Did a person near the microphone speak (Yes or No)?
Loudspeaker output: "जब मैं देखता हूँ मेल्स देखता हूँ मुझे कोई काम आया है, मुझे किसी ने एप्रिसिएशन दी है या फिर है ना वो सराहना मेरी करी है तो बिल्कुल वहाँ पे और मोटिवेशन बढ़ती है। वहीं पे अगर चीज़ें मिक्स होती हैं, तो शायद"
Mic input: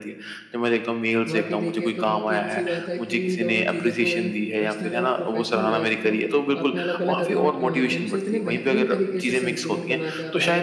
Yes